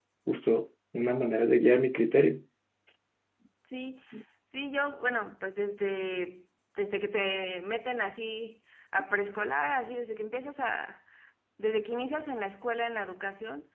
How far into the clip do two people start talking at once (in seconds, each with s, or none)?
none